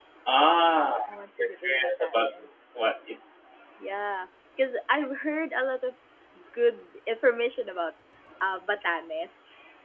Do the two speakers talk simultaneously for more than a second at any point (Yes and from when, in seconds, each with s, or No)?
Yes, from 0.7 s